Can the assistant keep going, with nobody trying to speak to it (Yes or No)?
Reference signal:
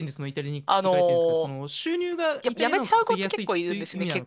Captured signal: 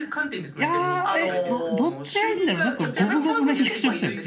No